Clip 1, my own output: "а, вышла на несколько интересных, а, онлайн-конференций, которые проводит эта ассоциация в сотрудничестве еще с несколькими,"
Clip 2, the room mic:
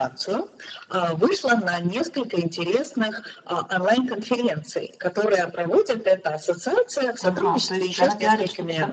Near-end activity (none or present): present